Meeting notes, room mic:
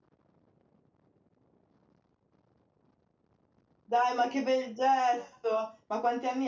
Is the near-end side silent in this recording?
No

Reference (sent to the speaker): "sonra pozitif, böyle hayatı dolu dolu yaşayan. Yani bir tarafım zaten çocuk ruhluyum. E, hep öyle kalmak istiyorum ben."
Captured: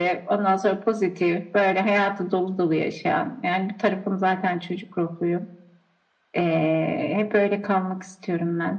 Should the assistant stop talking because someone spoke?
No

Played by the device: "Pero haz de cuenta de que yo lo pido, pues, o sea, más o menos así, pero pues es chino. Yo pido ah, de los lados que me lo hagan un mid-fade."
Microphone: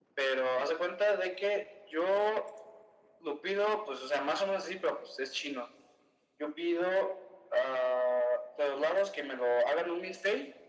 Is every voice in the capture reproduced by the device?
Yes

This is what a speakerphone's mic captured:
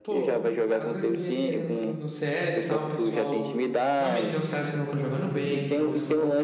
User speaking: Yes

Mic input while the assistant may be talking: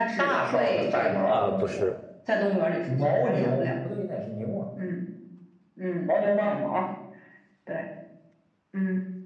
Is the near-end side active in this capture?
Yes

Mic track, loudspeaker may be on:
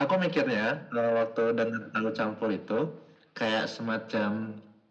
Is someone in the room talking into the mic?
No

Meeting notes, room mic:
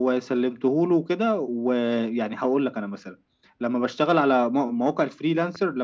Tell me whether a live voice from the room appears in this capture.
No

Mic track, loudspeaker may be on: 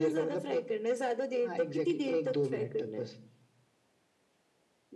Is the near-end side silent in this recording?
Yes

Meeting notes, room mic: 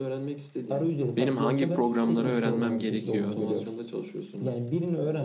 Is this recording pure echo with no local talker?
No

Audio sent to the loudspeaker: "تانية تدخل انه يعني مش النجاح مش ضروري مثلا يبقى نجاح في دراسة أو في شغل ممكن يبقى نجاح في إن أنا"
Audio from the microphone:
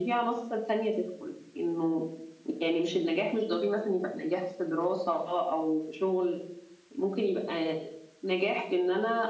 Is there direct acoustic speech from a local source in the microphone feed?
No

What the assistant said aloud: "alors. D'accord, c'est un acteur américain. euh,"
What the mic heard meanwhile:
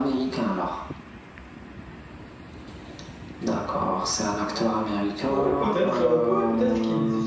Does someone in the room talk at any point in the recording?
Yes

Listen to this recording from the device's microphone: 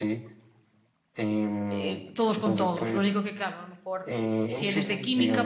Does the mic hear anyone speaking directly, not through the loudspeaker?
Yes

